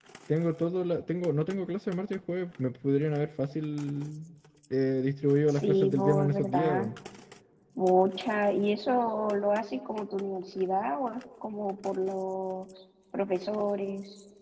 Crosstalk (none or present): present